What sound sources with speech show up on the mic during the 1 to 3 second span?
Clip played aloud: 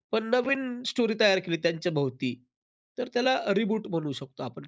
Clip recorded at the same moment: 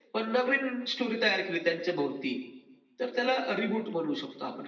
echo only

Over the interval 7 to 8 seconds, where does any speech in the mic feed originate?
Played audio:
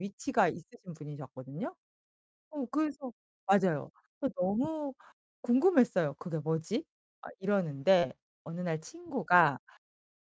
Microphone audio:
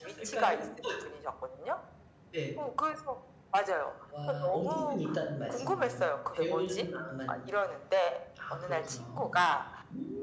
both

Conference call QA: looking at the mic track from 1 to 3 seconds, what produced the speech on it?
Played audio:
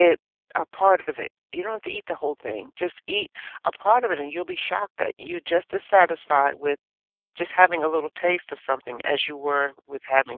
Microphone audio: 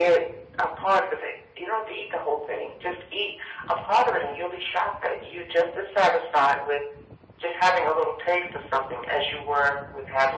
echo only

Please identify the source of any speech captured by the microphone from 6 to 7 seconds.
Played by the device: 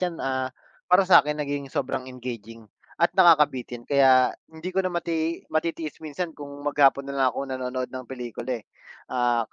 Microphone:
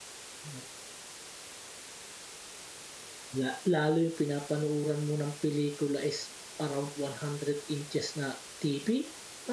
user only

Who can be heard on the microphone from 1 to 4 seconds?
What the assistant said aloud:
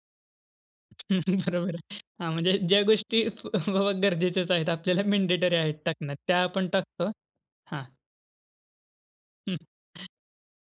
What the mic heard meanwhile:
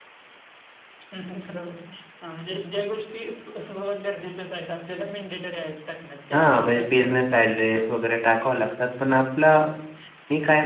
echo only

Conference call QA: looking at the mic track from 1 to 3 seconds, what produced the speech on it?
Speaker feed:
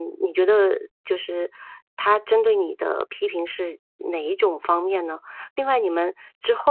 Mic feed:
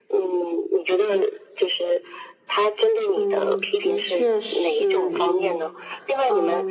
echo only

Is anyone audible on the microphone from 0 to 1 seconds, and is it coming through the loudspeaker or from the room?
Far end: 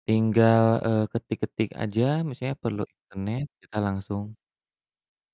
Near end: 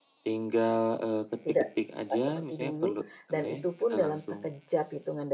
echo only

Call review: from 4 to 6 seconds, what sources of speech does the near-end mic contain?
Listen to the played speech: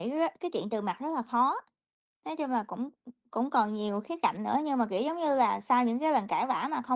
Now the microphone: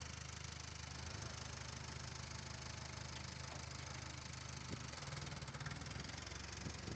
neither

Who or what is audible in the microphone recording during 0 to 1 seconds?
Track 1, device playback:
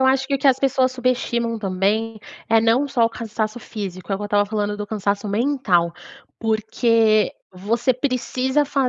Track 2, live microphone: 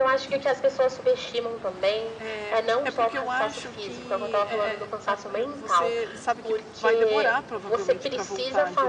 echo only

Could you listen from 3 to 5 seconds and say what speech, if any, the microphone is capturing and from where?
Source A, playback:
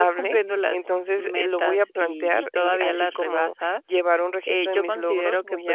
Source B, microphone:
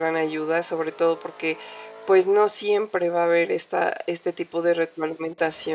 user only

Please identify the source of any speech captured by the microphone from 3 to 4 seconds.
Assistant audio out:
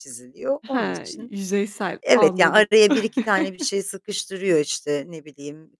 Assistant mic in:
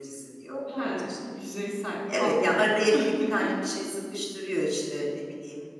echo only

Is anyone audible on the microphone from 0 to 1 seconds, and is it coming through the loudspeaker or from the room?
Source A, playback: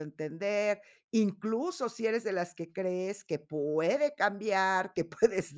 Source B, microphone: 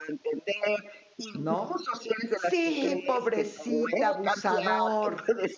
echo only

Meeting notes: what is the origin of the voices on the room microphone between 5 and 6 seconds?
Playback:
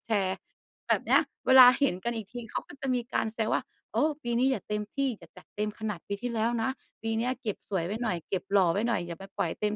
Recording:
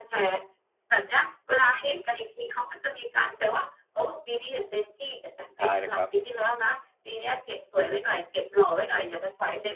both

